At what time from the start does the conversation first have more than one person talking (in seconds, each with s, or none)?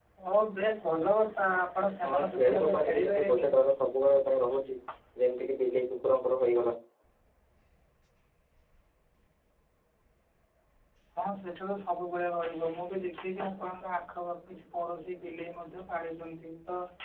2.0 s